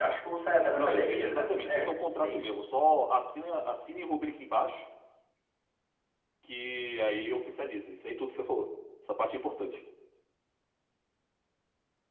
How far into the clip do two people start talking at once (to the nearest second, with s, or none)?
1 s